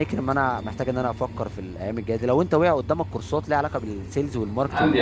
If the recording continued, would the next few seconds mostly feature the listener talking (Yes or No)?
Yes